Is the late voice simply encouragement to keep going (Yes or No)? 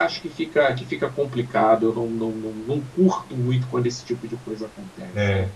No